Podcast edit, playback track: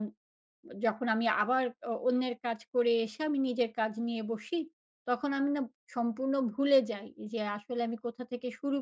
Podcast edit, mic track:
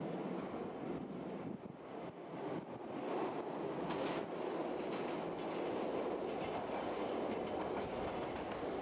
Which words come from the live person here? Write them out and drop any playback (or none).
none